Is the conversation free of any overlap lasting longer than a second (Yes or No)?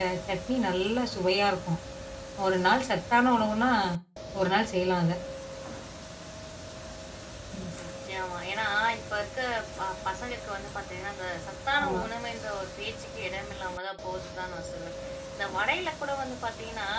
Yes